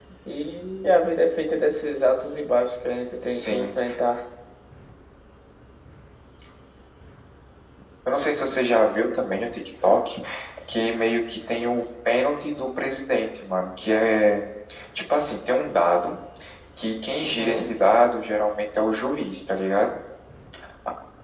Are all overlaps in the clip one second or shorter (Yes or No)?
Yes